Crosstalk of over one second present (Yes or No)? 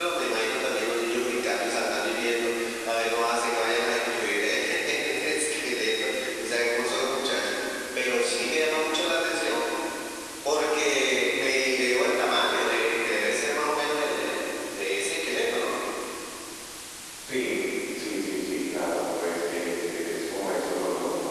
No